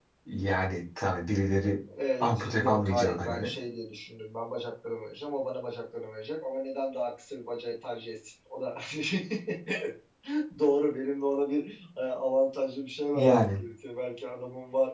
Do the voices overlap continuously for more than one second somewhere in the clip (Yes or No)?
Yes